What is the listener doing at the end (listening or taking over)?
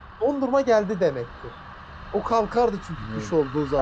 taking over